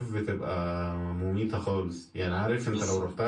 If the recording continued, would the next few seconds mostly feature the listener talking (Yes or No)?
No